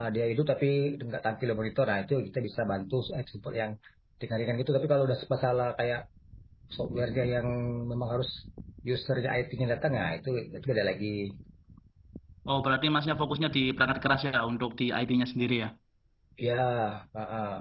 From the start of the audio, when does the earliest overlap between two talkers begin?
none

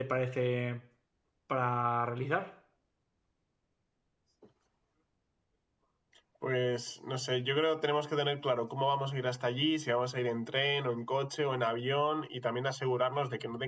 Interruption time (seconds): none

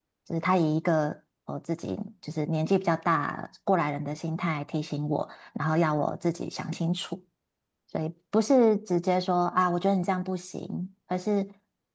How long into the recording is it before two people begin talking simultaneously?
none

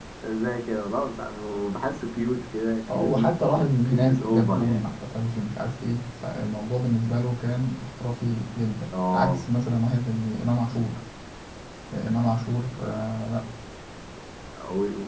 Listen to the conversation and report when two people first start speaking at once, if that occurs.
2.9 s

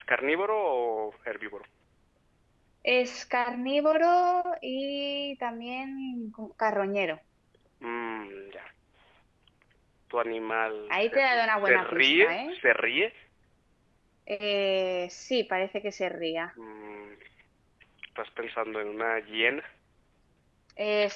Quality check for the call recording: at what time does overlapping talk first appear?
10.9 s

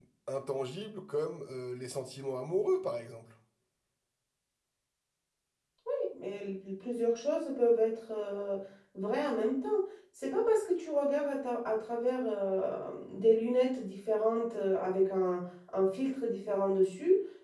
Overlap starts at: none

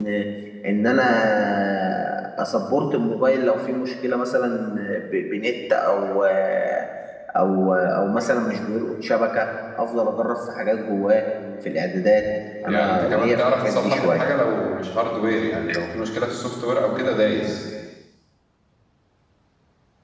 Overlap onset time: 12.7 s

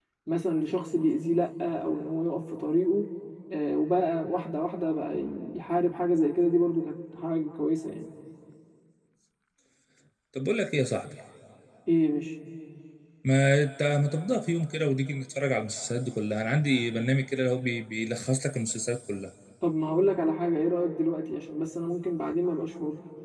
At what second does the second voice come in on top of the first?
none

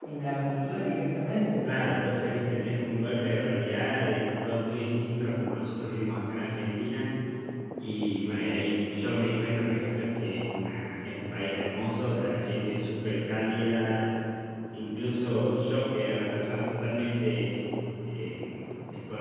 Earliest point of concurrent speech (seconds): none

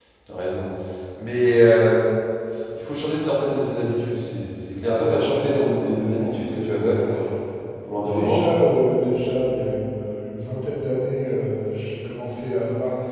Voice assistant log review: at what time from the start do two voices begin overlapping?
4.8 s

